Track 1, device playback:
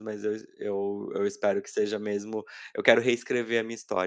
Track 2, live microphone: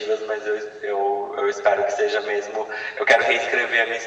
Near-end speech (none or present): none